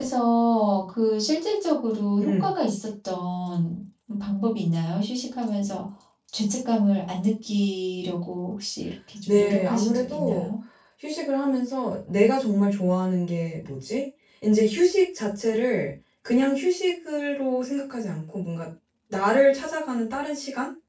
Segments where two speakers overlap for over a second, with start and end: 9.3-10.5

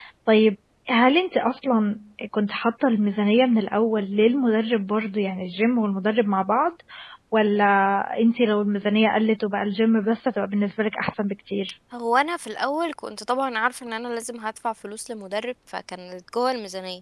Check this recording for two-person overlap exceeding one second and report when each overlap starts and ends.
none

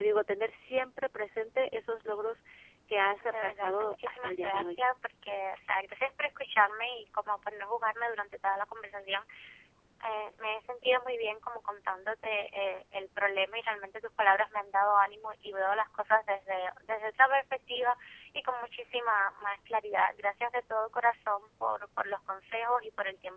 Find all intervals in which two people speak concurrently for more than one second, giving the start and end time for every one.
3.2-4.7

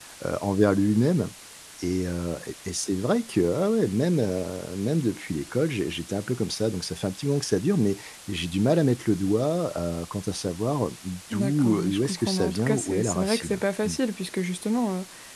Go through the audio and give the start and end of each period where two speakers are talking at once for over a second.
11.3-14.0

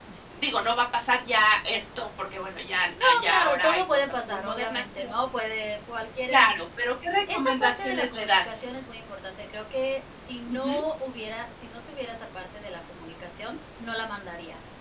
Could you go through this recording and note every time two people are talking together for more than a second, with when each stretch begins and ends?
3.0-5.1, 7.3-8.6

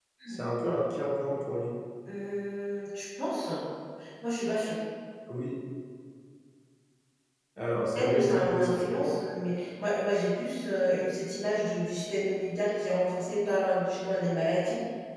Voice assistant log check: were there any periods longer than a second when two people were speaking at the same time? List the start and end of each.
8.0-9.2

